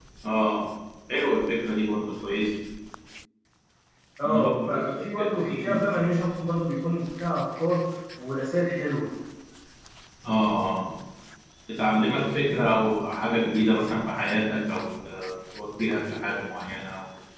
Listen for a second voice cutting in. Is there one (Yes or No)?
Yes